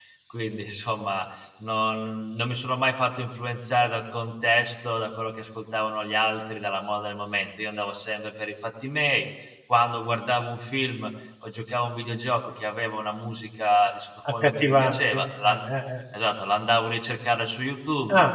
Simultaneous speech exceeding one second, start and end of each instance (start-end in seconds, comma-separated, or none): 14.3-15.5